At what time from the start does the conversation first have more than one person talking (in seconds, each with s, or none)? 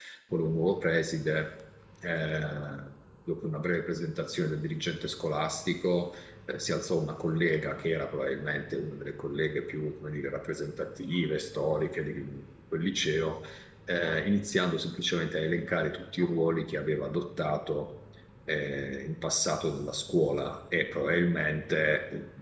none